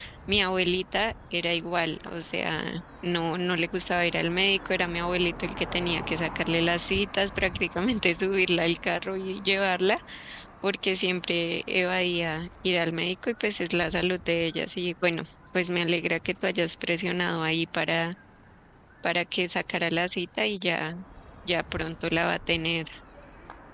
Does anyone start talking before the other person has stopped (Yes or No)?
No